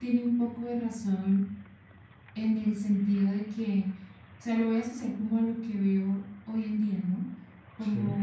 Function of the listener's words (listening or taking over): listening